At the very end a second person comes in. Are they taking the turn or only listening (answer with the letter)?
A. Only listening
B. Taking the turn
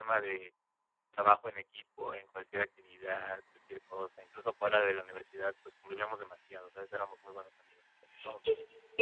B